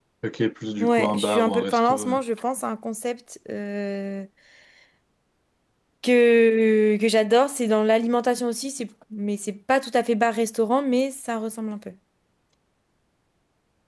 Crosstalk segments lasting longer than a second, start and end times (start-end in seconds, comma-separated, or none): 0.8-2.2